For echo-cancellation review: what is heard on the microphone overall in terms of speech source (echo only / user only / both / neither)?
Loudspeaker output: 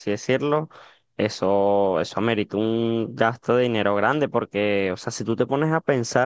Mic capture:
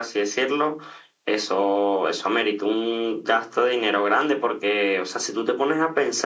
echo only